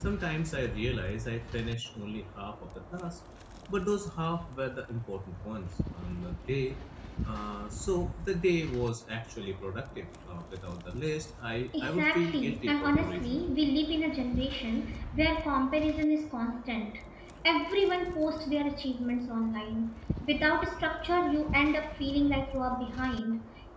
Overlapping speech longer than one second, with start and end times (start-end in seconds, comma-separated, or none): 11.8-13.4